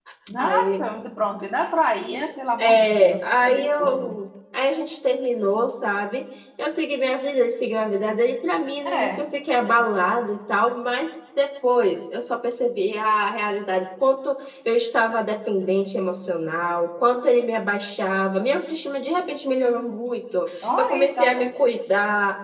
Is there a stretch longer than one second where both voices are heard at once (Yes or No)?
Yes